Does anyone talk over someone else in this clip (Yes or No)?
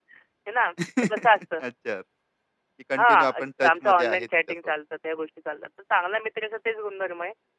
Yes